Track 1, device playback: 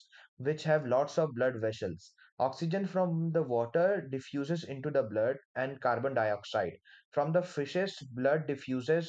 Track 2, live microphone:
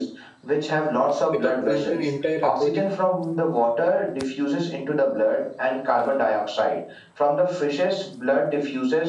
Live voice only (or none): Without plankton, entire aquatic